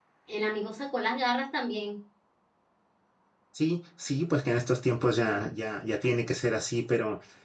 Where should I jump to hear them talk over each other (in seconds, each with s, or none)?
none